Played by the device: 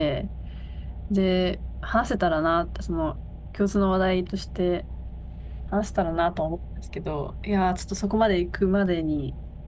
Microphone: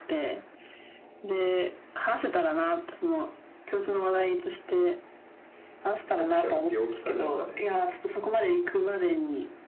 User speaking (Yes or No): Yes